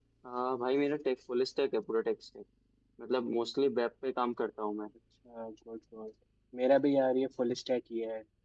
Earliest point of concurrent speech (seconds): none

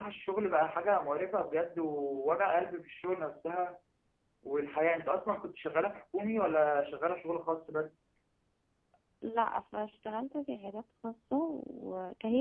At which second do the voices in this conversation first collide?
none

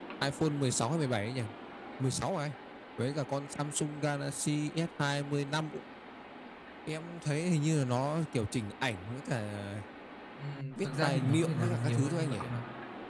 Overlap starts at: 11 s

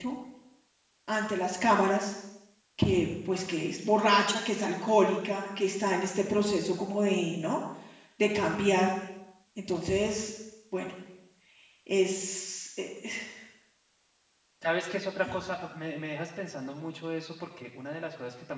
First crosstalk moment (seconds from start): none

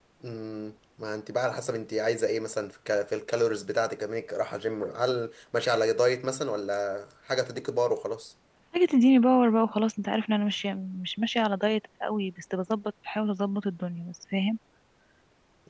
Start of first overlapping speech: none

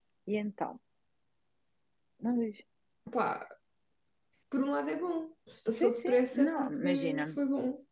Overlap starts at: 6 s

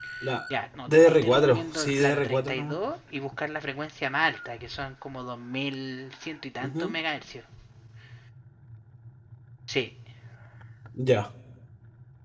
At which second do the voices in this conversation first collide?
1 s

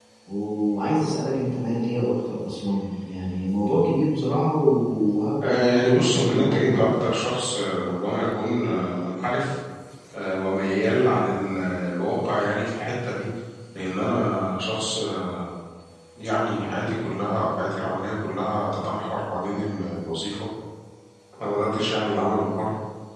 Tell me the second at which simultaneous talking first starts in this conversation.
5 s

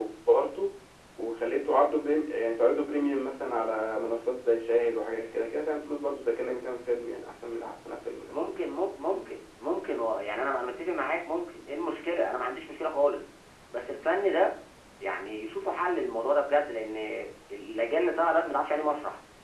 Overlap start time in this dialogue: none

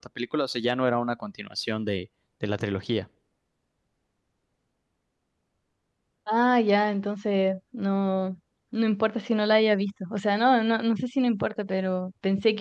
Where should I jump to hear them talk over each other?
none

